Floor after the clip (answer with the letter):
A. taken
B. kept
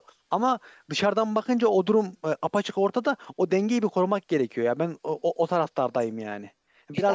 B